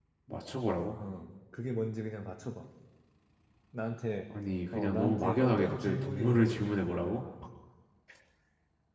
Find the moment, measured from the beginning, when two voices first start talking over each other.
4.7 s

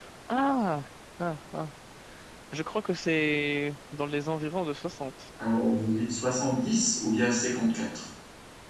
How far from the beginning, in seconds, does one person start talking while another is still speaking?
none

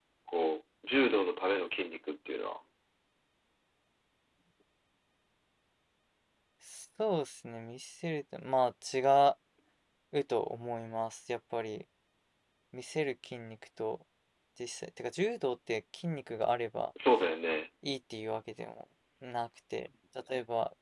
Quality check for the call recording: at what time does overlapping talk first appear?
none

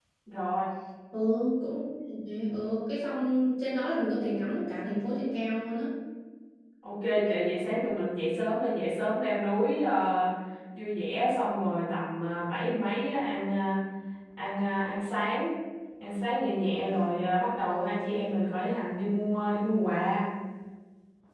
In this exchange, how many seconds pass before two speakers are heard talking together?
none

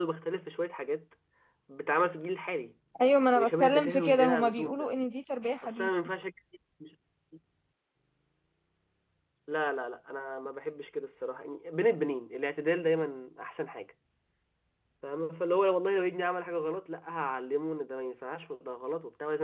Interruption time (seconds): 3.4 s

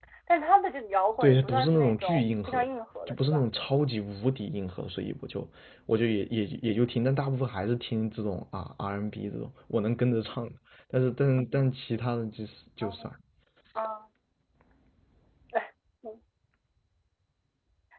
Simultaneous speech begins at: 1.2 s

